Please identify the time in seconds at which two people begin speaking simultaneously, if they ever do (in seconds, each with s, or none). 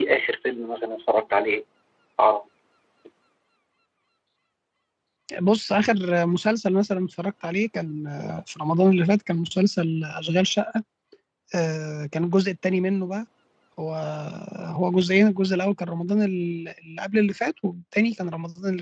none